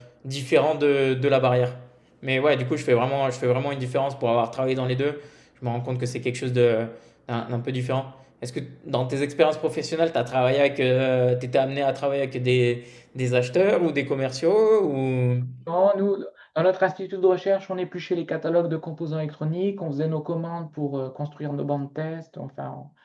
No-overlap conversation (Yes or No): Yes